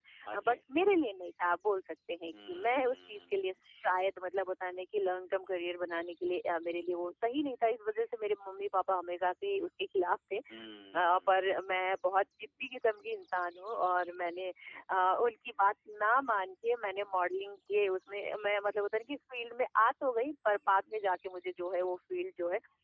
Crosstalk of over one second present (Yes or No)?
Yes